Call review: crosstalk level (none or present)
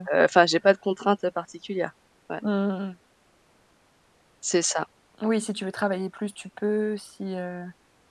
none